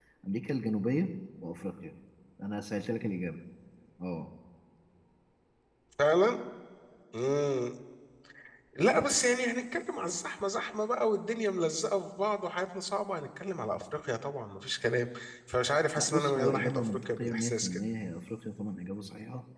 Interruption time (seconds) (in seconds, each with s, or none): 16.0 s